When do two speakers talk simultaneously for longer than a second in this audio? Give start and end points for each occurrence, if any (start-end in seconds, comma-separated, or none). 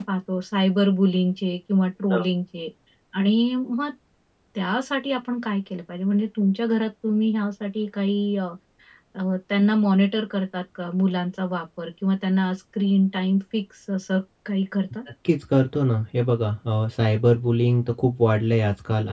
none